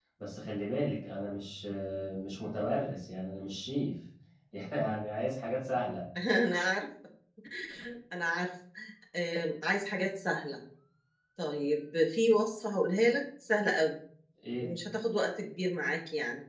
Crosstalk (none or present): none